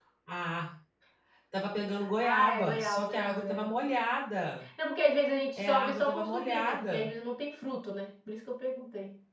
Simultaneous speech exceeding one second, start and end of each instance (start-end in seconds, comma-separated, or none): 2.2-3.8, 5.6-7.1